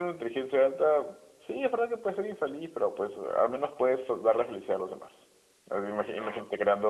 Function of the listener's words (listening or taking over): listening